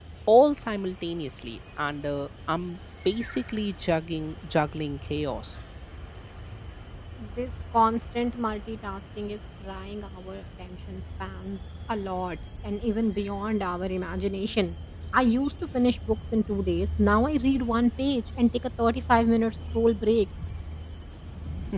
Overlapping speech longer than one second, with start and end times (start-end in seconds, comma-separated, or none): none